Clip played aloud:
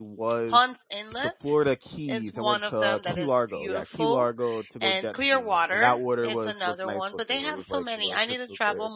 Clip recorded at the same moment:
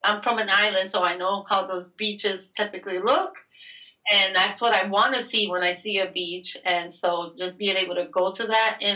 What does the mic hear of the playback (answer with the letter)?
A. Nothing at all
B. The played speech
A